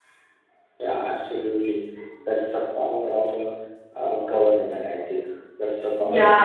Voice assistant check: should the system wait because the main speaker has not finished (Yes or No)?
No